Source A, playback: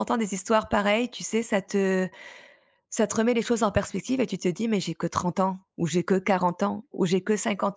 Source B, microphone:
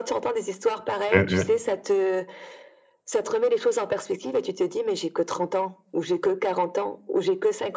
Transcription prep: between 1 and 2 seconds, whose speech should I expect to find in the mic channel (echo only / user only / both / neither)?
both